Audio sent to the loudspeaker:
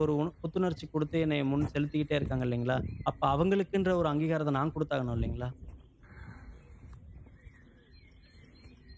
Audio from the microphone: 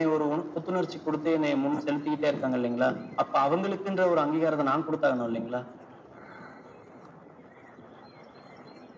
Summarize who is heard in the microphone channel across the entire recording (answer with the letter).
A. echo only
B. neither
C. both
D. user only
A